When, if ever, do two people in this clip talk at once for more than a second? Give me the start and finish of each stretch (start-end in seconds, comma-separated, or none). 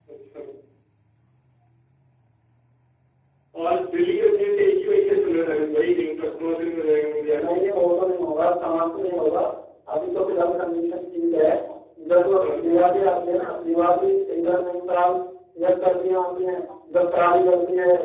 none